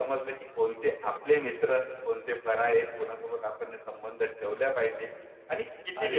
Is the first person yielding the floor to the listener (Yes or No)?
Yes